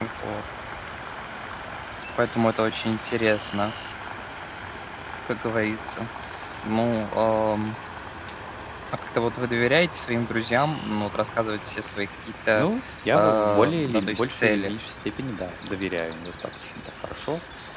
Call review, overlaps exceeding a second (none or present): present